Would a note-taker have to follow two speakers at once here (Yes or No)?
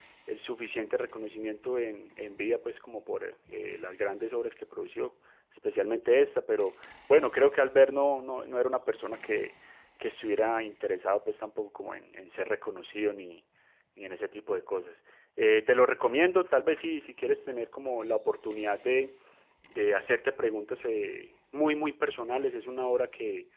No